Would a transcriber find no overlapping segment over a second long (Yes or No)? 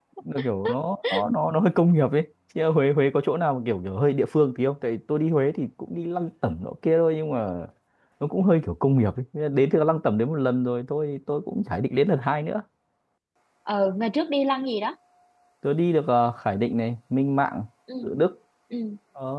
Yes